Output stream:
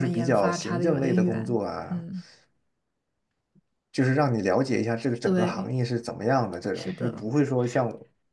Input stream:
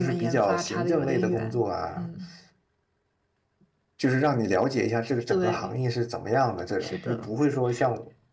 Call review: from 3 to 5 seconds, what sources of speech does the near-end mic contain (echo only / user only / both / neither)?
echo only